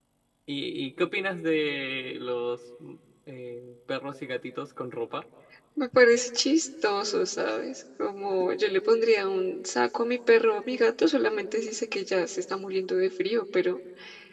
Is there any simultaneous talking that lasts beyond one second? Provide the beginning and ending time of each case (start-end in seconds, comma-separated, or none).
none